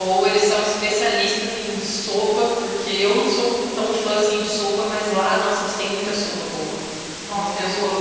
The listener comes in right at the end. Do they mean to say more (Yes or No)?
Yes